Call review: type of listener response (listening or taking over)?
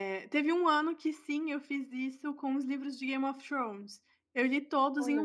listening